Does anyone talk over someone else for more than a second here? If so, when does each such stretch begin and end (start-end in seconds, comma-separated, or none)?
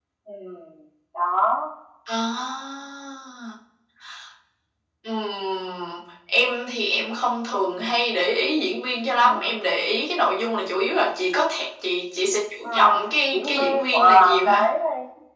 13.3-14.6